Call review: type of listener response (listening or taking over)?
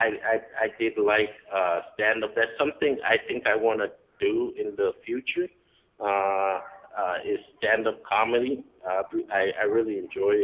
listening